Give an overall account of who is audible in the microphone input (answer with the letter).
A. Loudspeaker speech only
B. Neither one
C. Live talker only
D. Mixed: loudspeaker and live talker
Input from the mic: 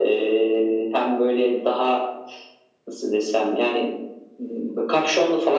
A